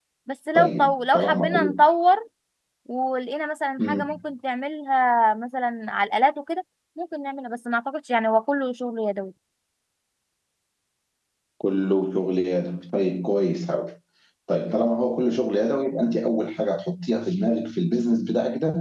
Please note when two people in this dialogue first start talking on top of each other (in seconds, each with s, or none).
0.6 s